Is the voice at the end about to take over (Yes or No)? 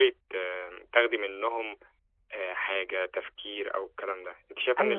No